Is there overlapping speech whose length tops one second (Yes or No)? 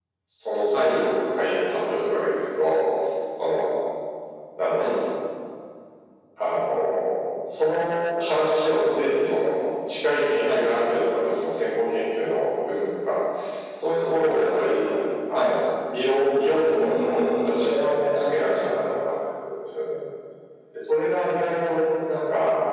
Yes